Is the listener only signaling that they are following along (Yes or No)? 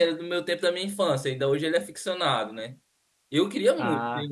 Yes